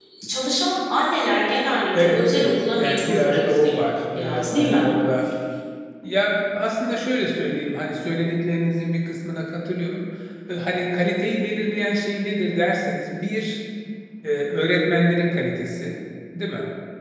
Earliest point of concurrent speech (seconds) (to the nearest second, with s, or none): 2 s